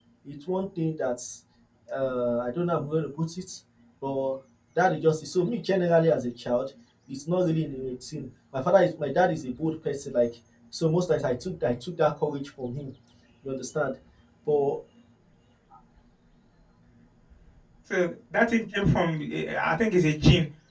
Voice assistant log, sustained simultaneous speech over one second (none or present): none